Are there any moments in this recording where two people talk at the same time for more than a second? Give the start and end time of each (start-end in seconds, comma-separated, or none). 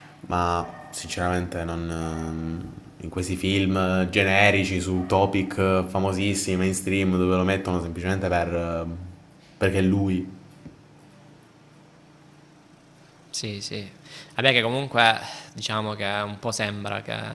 none